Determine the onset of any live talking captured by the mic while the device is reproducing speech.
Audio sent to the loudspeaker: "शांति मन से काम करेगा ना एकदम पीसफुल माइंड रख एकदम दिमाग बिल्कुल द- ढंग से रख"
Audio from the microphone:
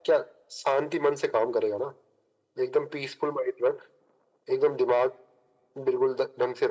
none

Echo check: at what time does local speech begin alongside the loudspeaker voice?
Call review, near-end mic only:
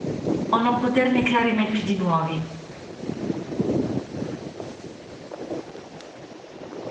0 s

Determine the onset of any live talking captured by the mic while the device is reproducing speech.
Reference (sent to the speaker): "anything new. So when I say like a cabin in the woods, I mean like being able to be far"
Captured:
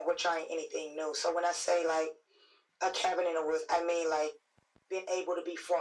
none

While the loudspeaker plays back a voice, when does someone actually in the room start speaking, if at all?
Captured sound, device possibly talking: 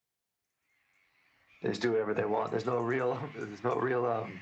none

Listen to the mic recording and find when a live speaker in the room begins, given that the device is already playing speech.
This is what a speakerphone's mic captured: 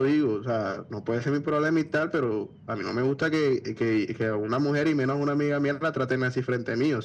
none

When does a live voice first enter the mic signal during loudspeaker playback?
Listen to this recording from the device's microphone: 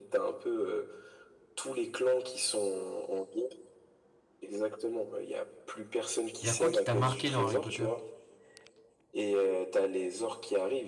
6 s

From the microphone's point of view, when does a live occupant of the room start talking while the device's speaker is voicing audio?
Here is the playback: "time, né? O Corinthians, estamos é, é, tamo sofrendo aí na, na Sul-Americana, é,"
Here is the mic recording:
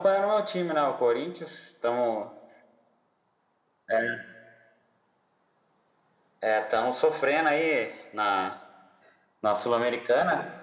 none

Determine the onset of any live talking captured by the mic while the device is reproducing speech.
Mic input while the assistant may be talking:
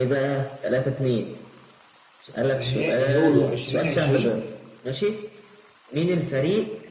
3 s

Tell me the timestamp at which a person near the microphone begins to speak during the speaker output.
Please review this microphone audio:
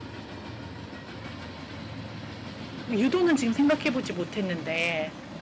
3 s

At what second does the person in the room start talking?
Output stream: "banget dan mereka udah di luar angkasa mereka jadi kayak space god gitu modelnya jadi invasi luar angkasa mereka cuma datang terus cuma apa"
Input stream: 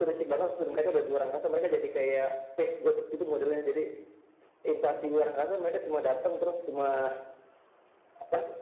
none

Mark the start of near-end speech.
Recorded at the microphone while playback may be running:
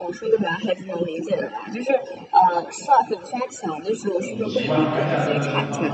4 s

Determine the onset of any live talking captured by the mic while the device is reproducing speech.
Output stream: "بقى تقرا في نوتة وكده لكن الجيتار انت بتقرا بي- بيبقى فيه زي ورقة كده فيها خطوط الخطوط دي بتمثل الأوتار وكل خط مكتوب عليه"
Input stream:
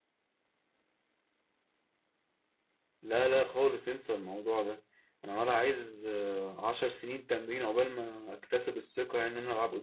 3 s

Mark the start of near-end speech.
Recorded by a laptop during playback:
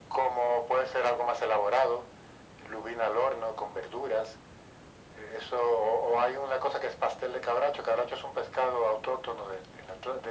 none

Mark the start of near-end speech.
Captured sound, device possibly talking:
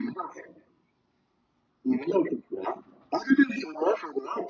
none

